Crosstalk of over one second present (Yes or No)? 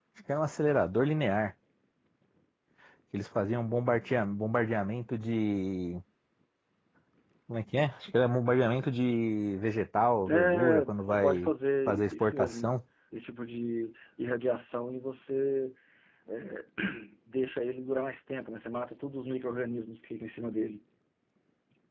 Yes